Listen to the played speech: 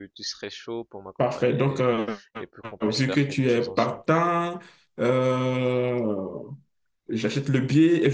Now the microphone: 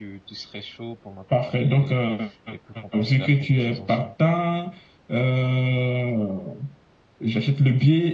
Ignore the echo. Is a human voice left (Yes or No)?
No